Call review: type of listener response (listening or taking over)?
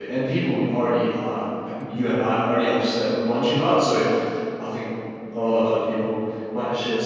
taking over